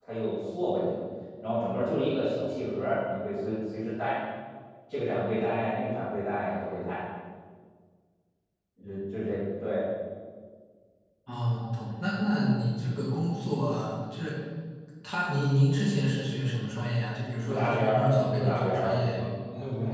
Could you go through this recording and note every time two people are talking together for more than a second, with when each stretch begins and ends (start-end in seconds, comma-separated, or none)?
17.5-19.2